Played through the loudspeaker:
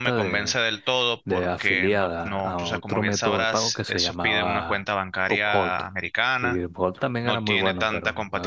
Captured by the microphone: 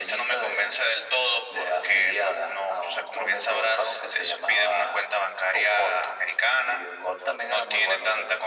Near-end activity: none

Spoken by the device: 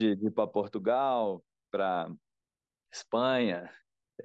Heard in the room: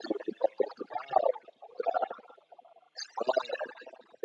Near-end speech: none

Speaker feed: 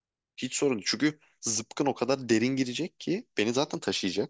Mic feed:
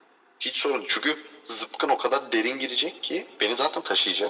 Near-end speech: none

